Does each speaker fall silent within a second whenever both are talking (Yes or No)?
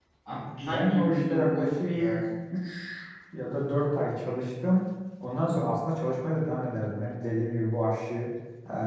No